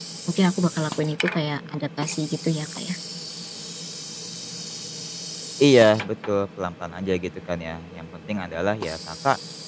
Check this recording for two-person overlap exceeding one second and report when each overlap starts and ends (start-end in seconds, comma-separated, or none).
none